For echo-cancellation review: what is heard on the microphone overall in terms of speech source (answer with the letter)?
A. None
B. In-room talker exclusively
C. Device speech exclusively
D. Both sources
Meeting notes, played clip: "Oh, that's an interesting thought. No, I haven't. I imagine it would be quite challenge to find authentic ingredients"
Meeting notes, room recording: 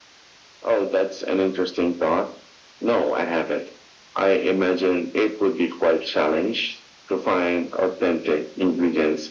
C